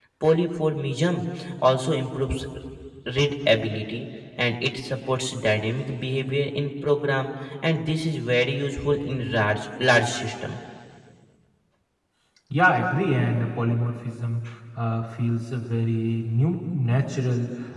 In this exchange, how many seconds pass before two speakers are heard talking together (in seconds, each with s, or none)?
none